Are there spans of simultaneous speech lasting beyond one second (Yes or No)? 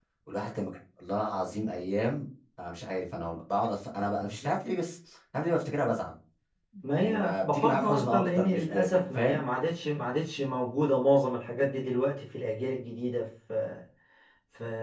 Yes